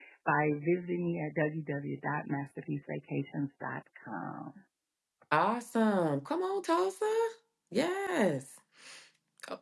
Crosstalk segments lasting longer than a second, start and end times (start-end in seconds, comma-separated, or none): none